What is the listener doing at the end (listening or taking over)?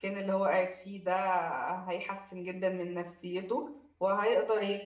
listening